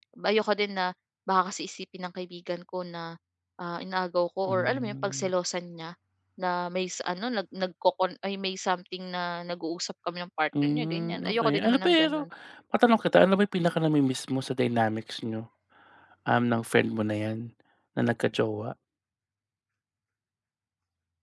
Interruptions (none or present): present